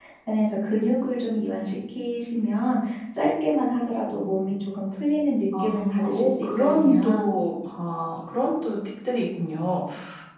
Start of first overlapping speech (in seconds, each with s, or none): 5.5 s